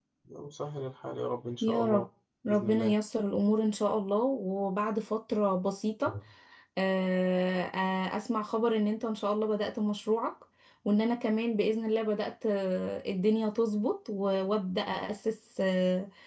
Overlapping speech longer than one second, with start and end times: none

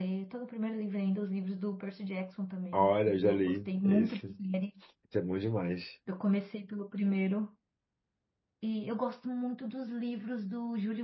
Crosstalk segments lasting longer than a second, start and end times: 2.7-4.2

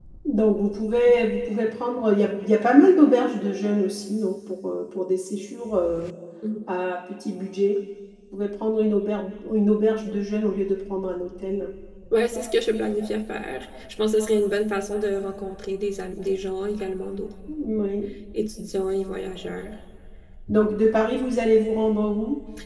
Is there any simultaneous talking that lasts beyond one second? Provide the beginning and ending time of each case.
none

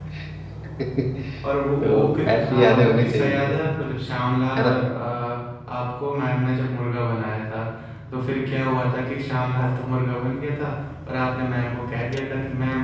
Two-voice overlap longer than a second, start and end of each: 1.8-3.6

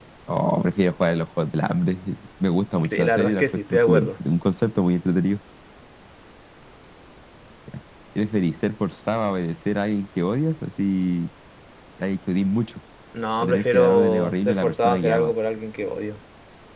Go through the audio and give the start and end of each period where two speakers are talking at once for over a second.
2.8-4.1, 13.4-15.3

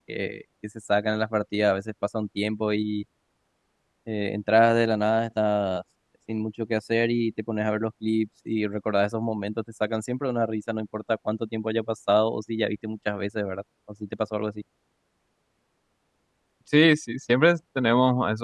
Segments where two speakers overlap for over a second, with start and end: none

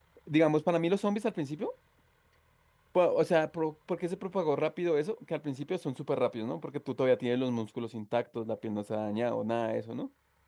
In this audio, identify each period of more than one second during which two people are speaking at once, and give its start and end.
none

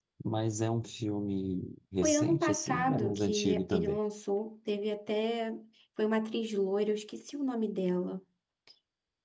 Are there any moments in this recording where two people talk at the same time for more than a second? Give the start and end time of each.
2.0-4.0

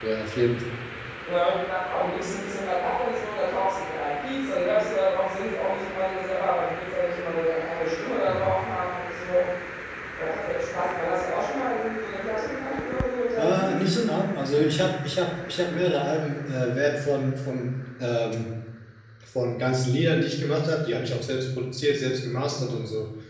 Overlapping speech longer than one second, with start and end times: none

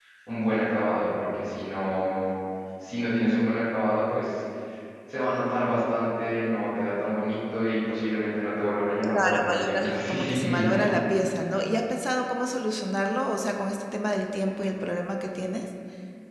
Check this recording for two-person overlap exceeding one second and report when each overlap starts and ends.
9.1-10.8

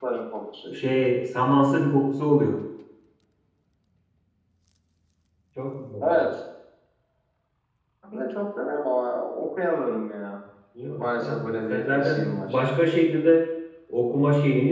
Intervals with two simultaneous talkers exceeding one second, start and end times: 11.0-12.6

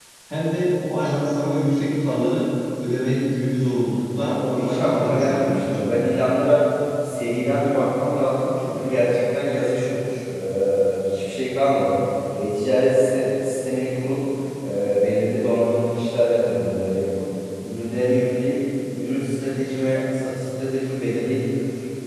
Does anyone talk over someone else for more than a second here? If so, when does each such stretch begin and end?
4.2-5.8

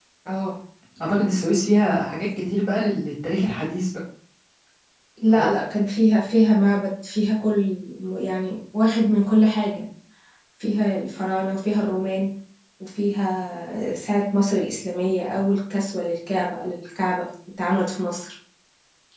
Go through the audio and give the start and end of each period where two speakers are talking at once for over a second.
none

